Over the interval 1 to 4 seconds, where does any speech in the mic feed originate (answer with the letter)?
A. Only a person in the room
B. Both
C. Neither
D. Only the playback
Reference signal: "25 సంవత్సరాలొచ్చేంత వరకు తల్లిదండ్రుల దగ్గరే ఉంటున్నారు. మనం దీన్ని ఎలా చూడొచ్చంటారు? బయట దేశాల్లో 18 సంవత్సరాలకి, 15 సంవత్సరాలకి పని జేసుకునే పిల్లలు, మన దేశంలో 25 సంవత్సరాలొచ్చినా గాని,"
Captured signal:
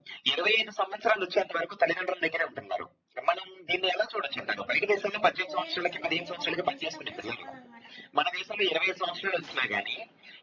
D